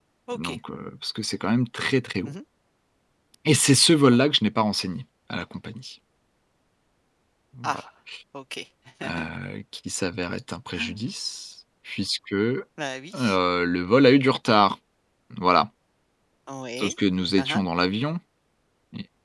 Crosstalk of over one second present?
No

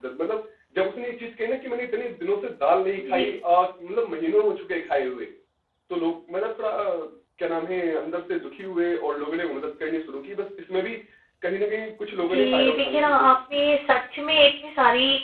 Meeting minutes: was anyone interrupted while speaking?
Yes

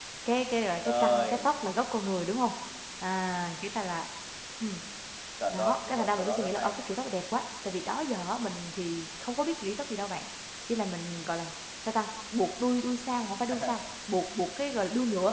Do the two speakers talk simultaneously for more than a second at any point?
Yes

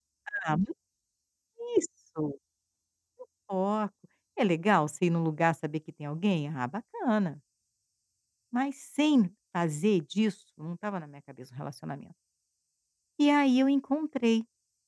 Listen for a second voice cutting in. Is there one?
No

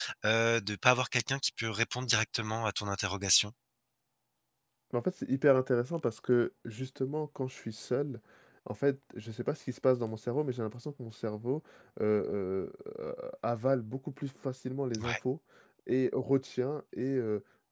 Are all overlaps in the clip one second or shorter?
Yes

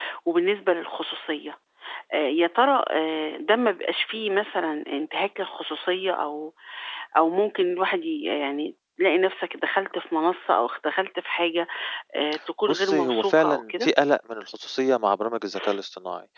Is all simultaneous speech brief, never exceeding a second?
No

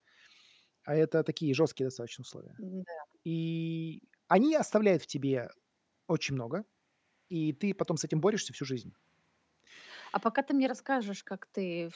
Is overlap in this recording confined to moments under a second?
Yes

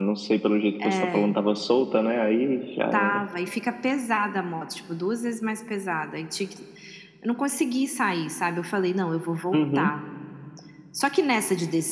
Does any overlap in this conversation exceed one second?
No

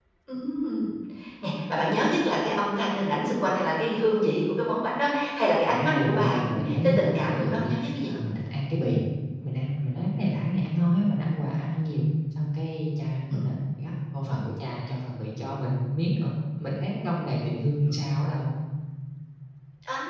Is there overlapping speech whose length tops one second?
Yes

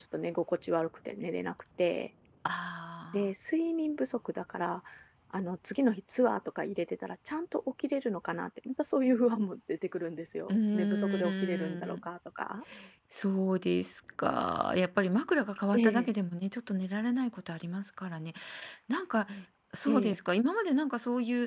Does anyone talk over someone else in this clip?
Yes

